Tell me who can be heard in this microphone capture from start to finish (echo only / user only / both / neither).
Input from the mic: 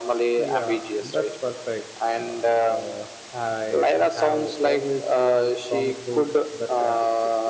both